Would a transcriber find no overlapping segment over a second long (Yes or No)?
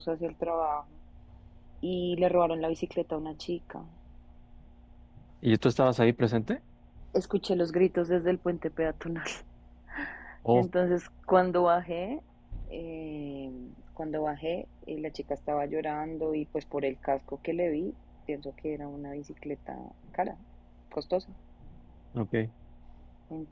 Yes